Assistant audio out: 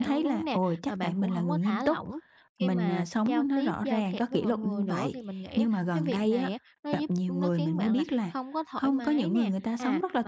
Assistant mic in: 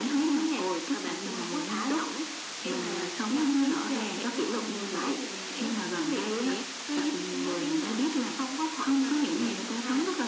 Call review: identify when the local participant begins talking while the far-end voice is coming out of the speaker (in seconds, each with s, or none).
none